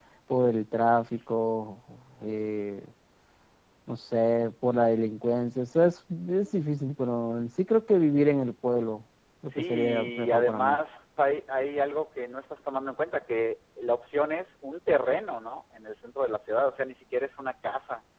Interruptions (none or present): present